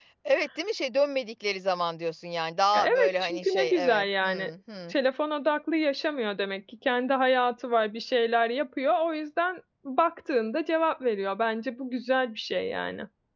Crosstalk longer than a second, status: present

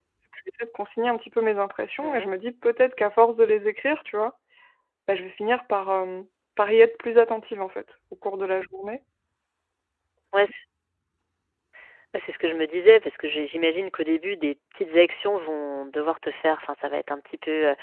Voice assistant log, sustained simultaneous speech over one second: none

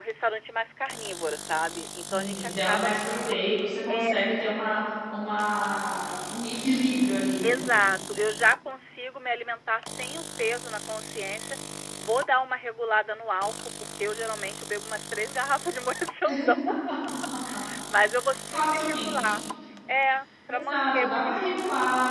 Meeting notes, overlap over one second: present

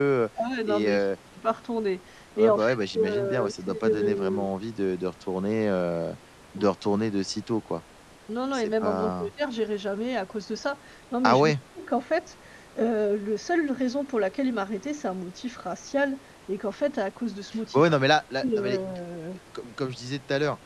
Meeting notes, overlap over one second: present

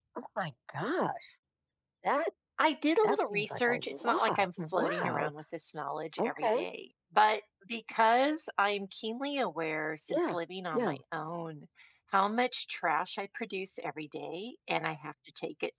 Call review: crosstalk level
present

